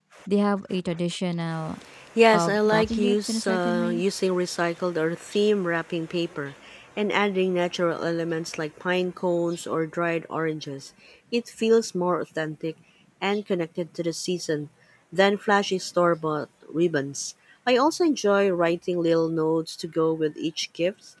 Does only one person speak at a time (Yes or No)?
No